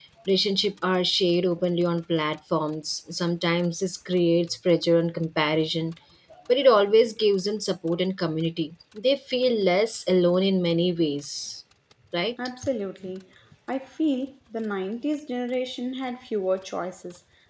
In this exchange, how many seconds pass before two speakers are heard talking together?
none

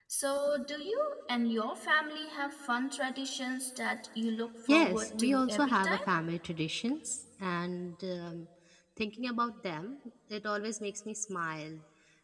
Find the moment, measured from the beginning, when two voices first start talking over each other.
5 s

